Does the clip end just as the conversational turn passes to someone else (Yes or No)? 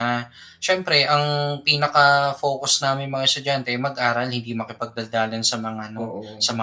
No